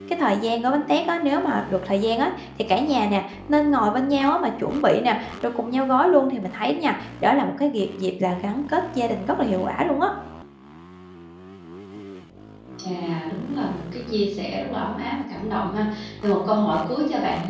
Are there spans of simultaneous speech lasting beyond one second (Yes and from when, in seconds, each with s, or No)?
No